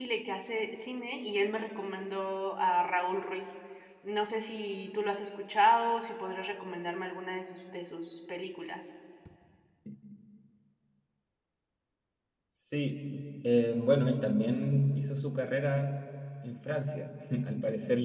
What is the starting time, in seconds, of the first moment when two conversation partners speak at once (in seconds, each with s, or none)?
none